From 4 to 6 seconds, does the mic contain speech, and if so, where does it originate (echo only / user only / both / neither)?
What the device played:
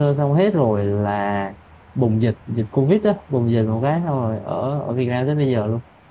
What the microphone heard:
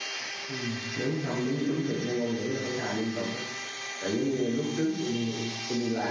user only